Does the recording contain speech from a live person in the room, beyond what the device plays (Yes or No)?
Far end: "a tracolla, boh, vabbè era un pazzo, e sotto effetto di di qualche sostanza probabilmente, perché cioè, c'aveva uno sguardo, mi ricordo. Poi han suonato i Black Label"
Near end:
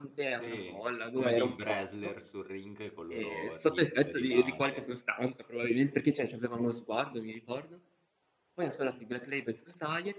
Yes